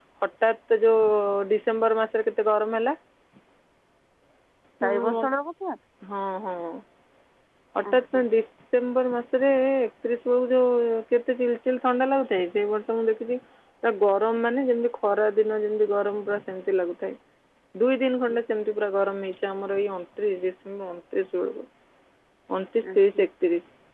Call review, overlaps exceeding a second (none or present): none